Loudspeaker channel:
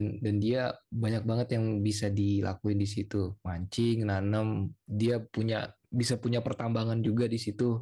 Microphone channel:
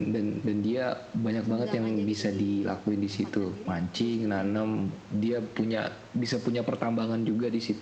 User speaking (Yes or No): Yes